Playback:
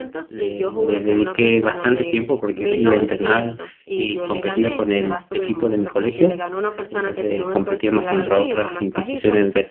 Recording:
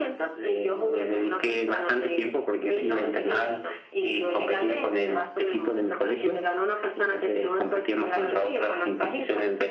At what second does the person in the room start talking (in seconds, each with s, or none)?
none